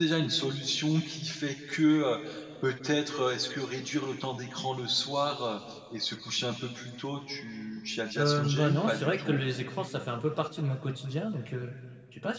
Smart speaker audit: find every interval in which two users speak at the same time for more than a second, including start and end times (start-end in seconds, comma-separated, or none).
8.2-9.4